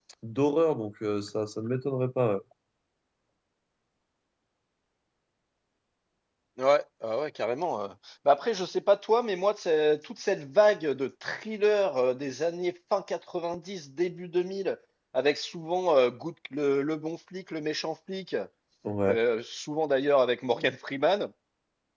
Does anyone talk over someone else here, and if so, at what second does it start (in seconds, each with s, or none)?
none